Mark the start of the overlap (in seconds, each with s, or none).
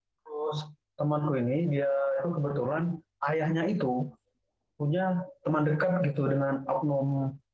none